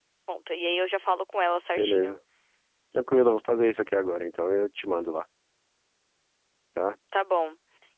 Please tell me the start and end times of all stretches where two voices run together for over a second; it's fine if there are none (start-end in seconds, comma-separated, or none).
none